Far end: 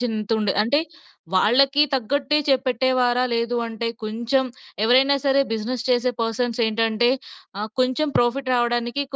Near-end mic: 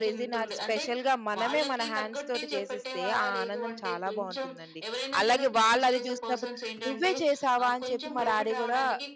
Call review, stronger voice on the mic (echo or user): user